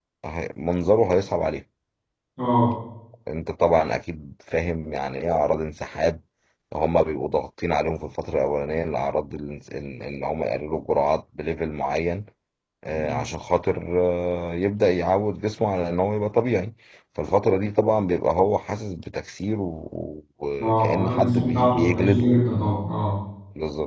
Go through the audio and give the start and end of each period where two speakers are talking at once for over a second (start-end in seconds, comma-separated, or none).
20.6-22.3